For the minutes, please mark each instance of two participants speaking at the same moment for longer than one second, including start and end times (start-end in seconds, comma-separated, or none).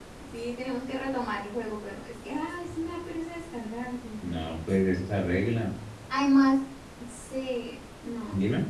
none